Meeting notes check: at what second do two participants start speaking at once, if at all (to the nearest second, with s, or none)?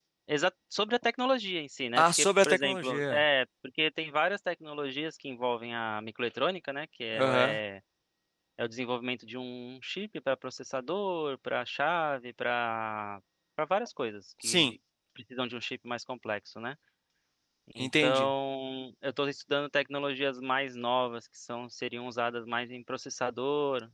2 s